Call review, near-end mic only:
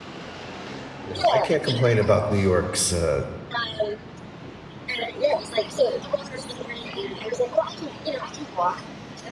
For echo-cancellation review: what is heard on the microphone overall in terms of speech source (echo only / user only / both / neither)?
both